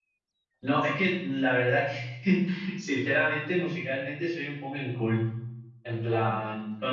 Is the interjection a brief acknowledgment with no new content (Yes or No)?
Yes